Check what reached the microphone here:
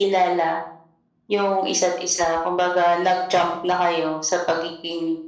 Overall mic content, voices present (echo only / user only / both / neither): echo only